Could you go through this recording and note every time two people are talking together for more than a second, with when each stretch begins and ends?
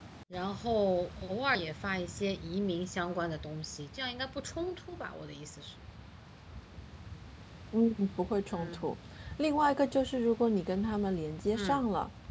none

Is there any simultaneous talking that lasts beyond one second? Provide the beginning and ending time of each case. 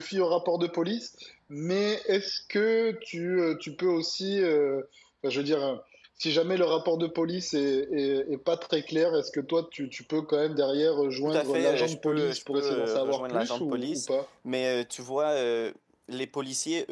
11.2-14.1

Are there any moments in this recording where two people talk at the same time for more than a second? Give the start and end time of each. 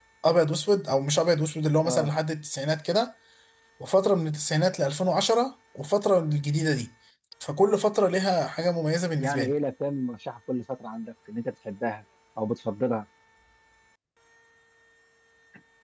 none

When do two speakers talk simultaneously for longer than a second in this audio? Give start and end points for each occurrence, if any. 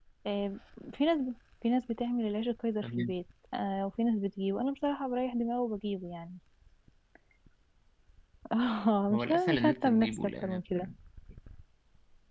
9.1-10.6

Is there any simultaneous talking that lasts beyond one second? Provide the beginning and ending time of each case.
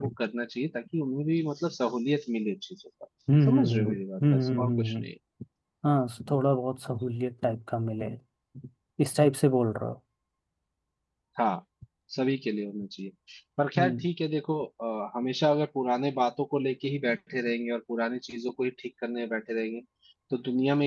3.5-5.1

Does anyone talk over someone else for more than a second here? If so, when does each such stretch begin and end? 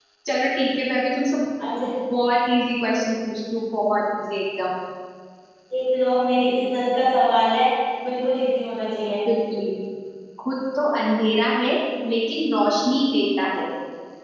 none

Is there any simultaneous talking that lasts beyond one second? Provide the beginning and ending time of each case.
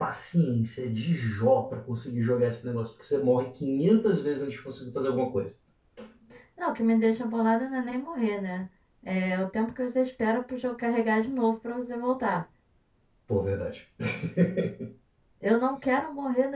none

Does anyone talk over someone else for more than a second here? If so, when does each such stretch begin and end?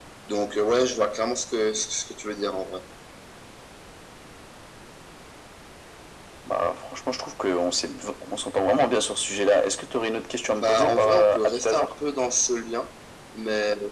10.6-11.9

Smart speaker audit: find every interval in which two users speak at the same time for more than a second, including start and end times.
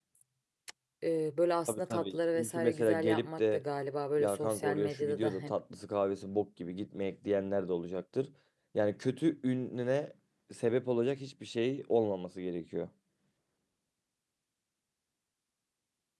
1.7-3.6, 4.2-5.5

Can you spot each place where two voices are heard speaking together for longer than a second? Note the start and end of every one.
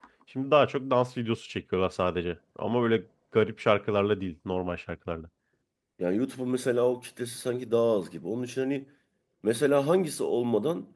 none

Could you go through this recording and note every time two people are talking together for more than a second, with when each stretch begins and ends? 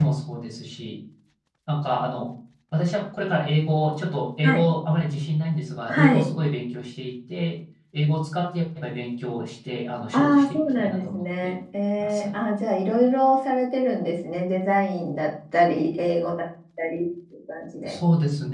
10.1-11.6

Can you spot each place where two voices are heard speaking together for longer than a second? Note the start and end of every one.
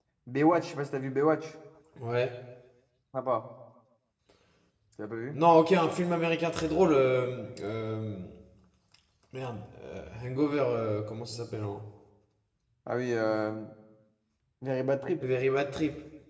none

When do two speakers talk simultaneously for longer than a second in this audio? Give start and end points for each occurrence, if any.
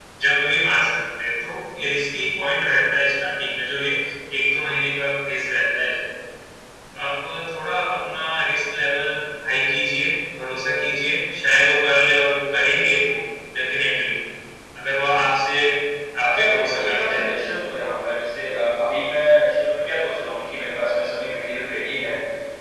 16.2-17.5

